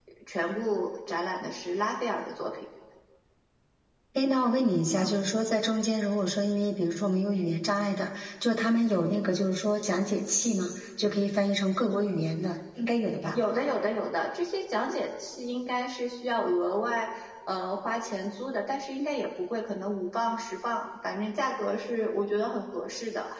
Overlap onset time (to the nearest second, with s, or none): none